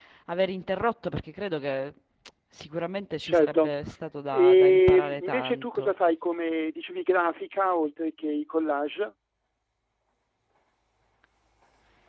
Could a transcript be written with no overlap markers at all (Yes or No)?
No